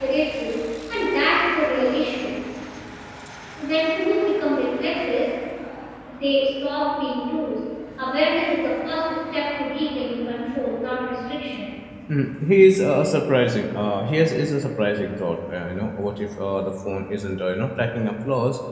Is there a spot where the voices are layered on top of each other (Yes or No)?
No